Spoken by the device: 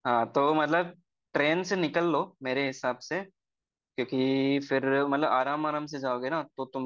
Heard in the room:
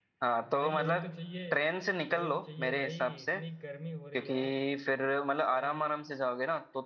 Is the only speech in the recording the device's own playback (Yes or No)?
No